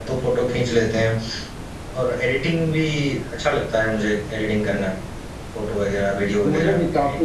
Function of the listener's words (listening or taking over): taking over